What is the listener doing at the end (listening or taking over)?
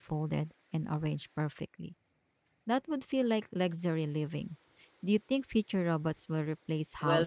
taking over